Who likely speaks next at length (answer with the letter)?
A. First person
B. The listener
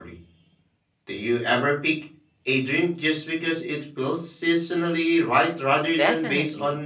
B